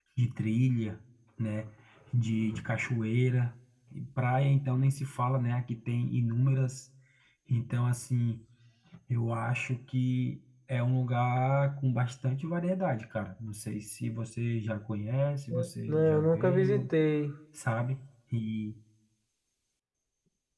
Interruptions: present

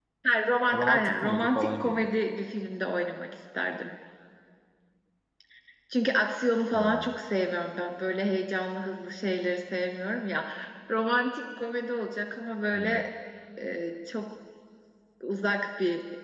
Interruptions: present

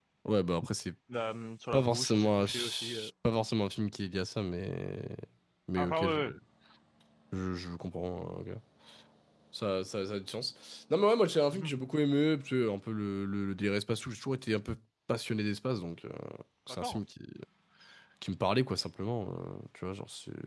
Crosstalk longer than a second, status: present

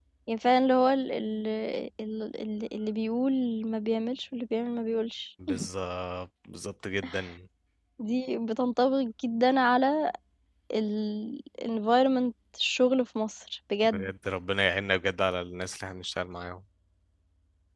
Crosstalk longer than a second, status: none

